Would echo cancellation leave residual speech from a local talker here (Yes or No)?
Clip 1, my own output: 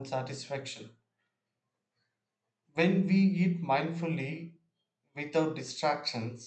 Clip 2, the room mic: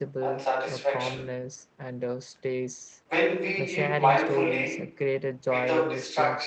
Yes